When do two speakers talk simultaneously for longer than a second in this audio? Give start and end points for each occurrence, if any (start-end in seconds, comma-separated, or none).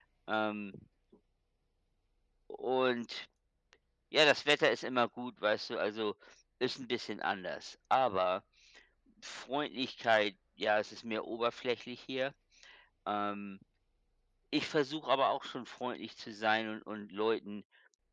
none